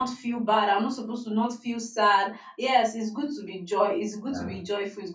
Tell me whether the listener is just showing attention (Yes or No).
Yes